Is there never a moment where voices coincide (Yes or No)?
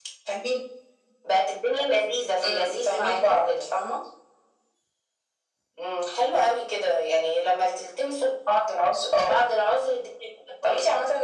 No